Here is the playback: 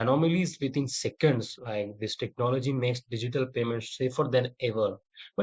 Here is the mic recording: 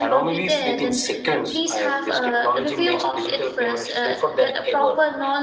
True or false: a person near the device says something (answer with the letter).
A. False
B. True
B